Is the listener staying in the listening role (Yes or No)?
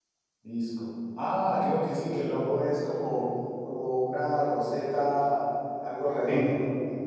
Yes